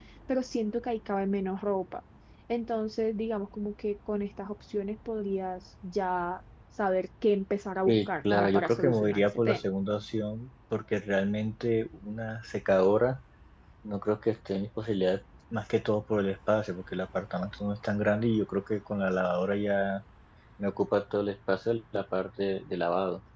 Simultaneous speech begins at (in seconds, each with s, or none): 7.9 s